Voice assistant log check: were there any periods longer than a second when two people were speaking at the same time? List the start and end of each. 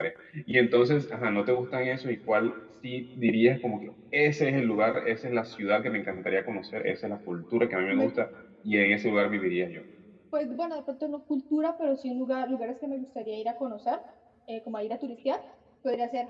none

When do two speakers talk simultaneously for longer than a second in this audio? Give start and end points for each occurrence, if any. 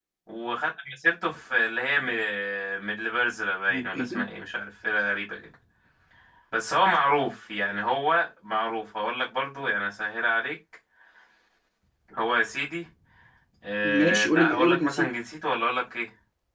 13.8-15.1

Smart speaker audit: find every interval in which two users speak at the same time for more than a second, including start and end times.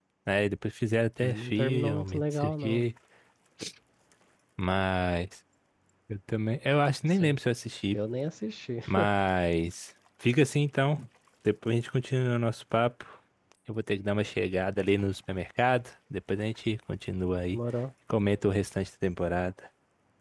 1.2-2.9

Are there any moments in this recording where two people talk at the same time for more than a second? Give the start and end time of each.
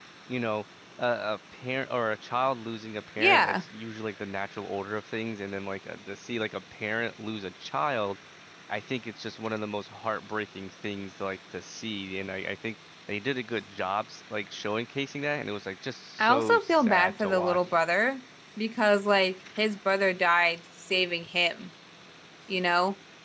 16.2-17.6

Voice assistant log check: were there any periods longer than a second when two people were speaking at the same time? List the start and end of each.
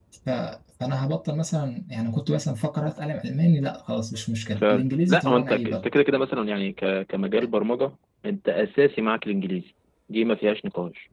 4.6-5.9

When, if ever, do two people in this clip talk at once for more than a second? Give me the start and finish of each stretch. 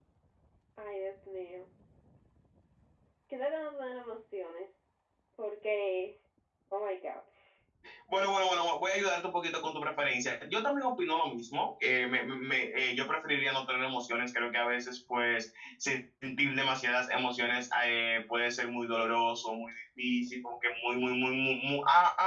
none

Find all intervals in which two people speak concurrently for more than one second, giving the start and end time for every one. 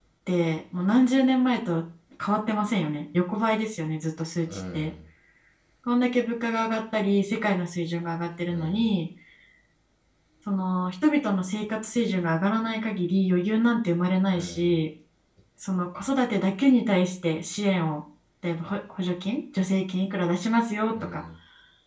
none

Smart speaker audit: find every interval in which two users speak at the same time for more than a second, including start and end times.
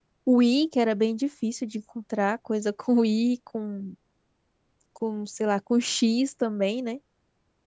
none

